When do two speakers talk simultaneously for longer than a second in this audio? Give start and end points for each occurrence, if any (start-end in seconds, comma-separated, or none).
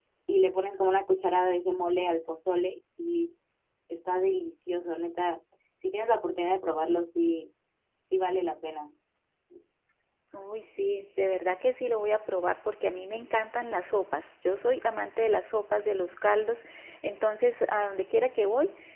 none